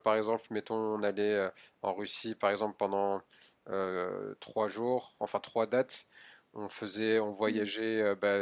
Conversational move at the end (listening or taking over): listening